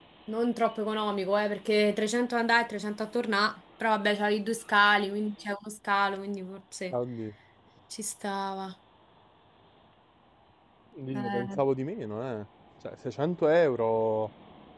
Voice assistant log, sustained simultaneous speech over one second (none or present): none